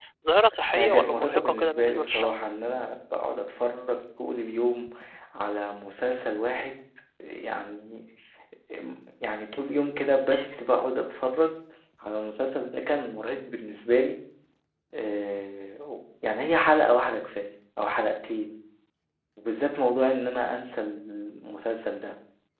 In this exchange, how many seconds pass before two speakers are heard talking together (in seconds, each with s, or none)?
0.8 s